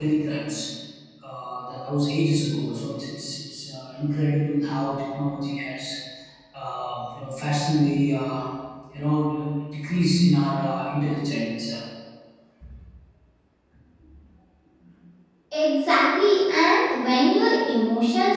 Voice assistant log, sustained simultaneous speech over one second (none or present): none